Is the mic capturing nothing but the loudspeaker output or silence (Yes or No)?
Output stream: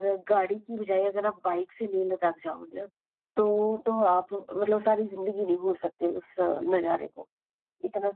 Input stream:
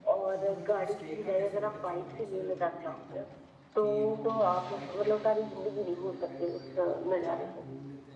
No